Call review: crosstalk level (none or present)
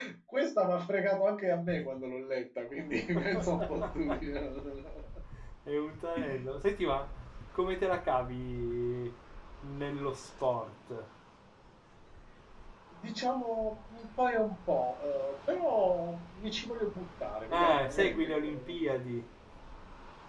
present